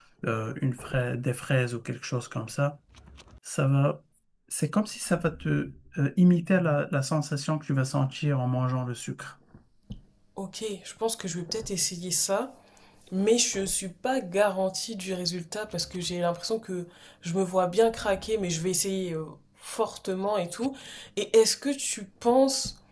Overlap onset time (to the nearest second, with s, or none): none